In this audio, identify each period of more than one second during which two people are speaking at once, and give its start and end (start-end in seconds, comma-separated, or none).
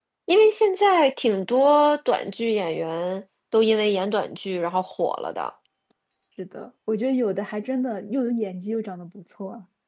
none